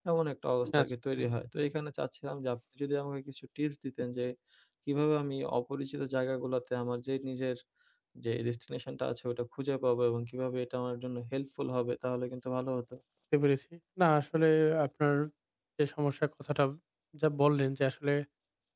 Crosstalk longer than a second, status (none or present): none